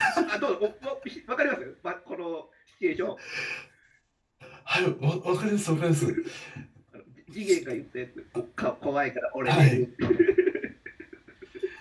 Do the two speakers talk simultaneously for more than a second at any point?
No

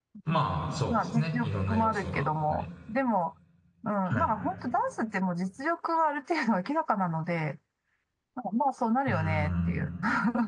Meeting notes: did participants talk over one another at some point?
Yes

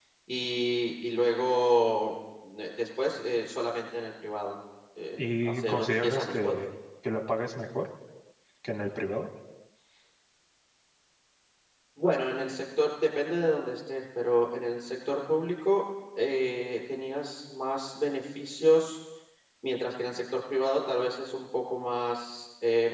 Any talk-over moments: Yes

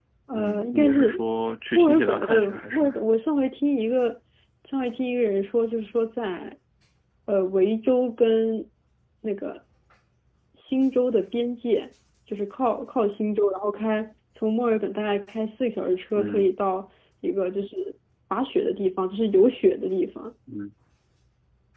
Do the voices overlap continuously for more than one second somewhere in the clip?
Yes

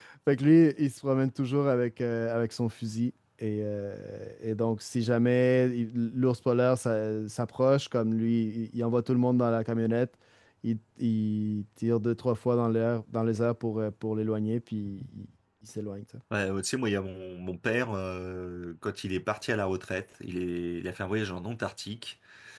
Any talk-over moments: No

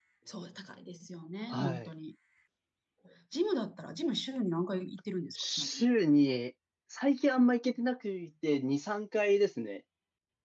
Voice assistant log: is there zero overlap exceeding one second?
Yes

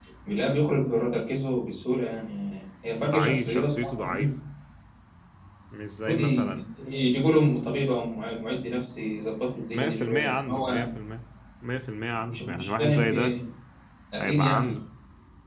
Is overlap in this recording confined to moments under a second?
No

